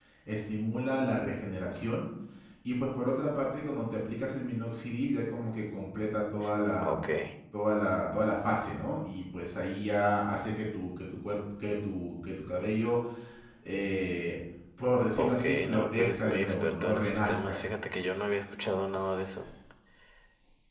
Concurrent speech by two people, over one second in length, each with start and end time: 15.2-17.6

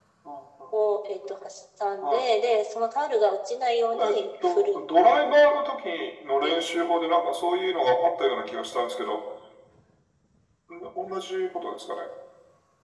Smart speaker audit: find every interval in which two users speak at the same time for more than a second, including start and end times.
4.0-5.6

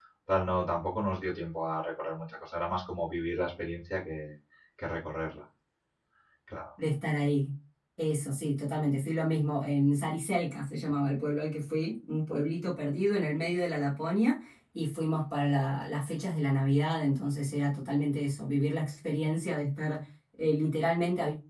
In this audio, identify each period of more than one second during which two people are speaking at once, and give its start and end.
none

